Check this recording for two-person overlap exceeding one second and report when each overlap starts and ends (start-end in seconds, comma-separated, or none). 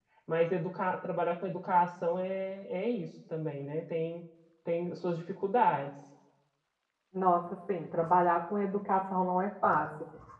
none